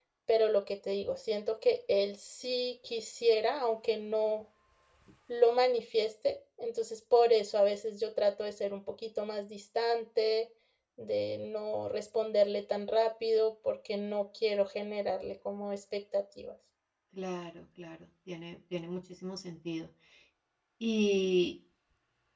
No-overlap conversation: Yes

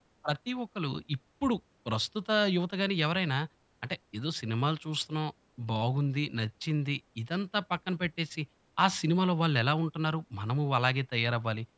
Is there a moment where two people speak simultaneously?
No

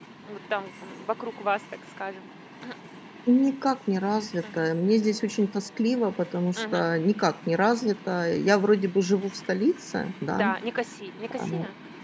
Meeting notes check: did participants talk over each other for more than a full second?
No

